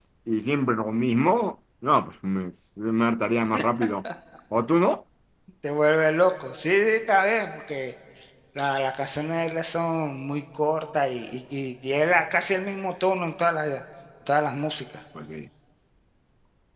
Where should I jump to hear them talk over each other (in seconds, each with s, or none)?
none